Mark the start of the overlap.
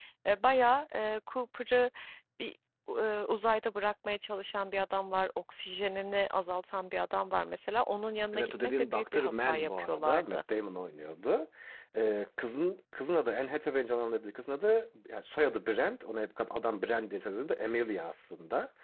8.3 s

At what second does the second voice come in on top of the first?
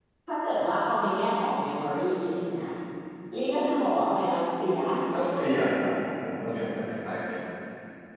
none

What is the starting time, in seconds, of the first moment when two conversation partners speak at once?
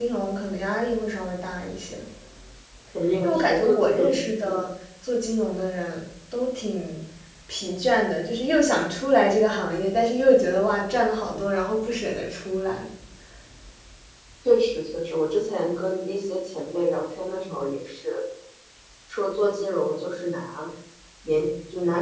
3.2 s

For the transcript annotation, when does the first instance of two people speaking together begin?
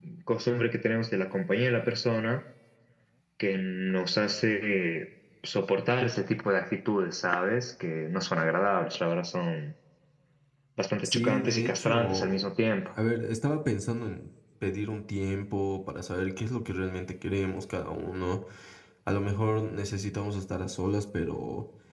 11.1 s

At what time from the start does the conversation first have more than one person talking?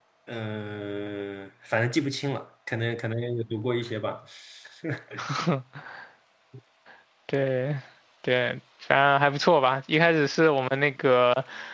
none

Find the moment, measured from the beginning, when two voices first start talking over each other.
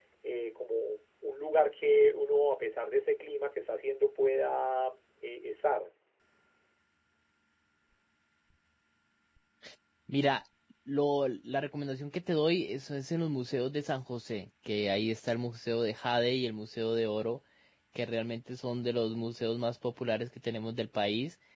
none

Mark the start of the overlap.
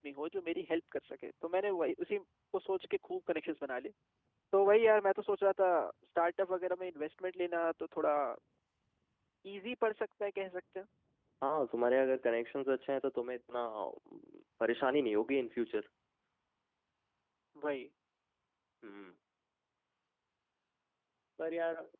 none

